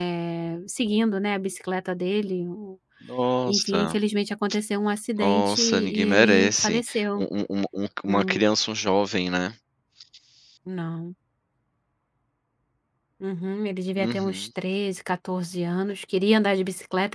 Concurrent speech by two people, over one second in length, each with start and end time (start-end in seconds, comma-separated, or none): 5.2-7.2